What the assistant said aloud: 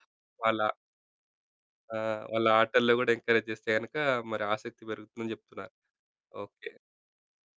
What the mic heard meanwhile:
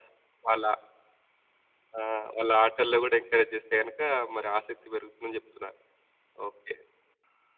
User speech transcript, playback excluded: none

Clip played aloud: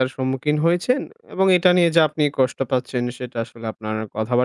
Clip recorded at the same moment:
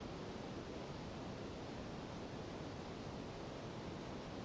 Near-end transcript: none

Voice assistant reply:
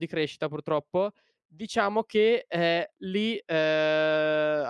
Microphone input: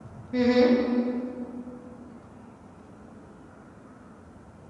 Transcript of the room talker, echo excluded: Mh-mh.

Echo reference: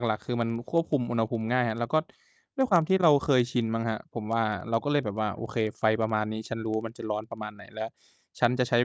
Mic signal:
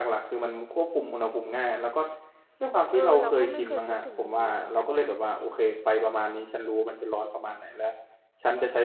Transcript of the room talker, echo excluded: ๆ เออ เราก็ไม่เคยคิดถึงมุมนี้เหมือนกันนะ

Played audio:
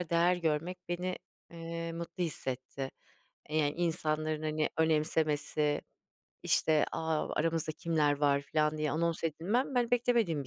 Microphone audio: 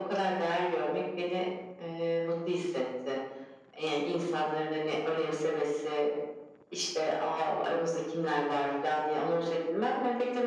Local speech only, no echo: none

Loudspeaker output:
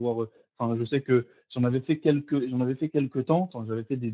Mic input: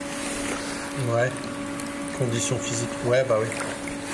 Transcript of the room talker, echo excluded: Mouais, condition physique. Ouais bah ouais.

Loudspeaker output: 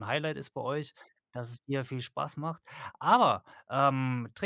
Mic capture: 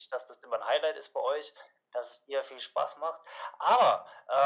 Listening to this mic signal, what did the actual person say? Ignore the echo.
none

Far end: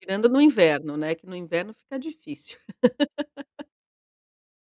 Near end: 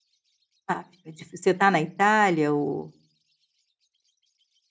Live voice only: Ah, fica difícil. Você tá na Itália ou

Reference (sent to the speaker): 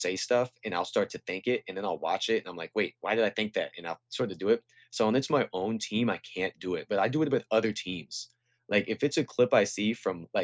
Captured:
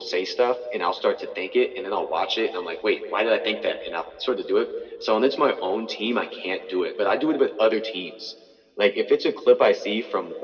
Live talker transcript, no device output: none

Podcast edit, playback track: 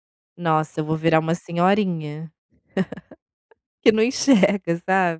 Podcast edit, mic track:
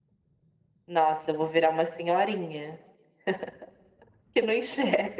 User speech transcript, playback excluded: none

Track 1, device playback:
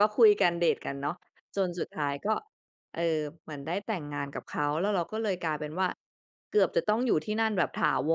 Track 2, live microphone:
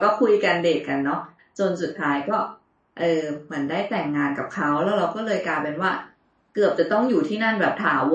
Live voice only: none

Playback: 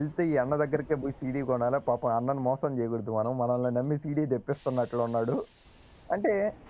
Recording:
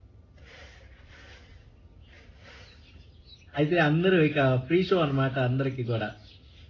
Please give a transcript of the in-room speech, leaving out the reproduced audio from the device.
అయితే, అందరూ ఇక ఫ్రీ షో అనమాట, అందరికి కూడా.

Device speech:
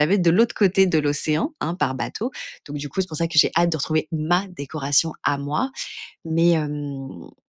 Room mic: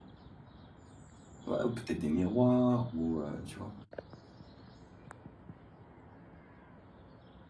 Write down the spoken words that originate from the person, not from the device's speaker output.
Ouais ou peut-être des miroirs ou heu, tu vois?

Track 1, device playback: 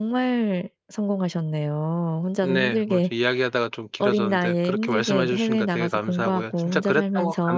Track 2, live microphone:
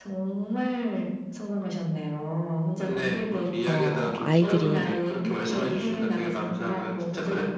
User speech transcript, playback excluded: 어 아이들이

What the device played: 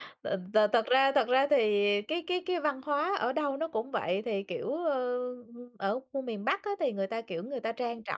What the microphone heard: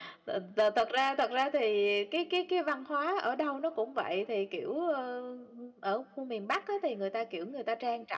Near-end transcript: none

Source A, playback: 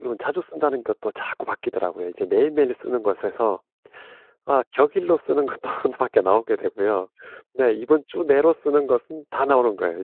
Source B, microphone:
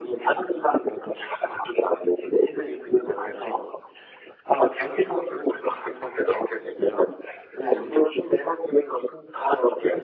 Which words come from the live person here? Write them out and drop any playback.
none

